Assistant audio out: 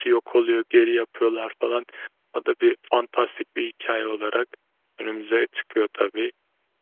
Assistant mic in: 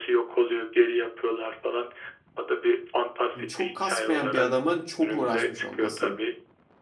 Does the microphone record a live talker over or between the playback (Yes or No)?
Yes